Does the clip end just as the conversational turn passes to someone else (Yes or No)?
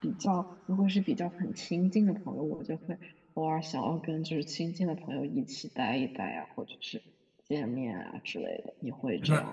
Yes